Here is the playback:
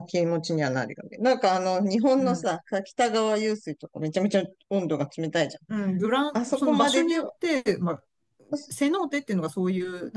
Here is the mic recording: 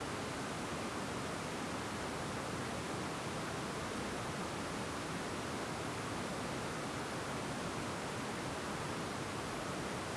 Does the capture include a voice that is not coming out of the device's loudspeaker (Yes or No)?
No